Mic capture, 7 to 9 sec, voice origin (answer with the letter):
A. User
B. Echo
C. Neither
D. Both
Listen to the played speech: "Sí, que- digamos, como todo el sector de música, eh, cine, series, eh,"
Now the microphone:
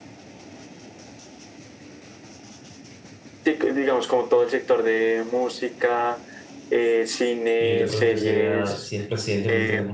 D